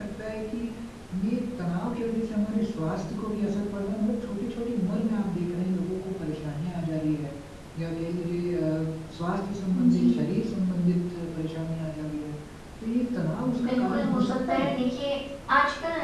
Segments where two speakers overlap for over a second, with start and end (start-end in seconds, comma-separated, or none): 13.6-14.8